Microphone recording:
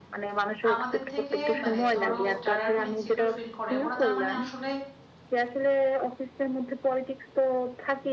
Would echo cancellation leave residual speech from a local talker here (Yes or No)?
Yes